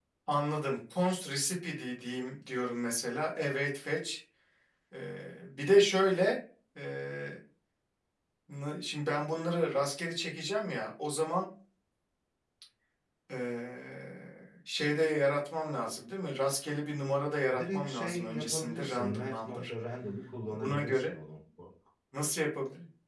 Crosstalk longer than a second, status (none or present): present